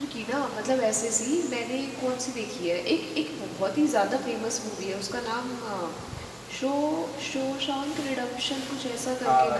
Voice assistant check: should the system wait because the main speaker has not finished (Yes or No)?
No